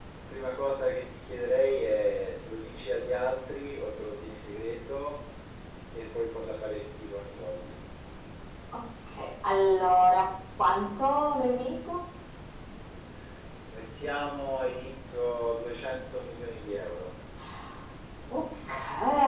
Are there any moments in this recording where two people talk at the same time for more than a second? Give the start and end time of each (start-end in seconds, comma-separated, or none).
none